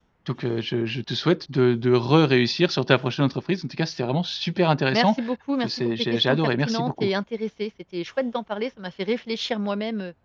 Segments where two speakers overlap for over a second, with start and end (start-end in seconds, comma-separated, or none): 5.6-7.1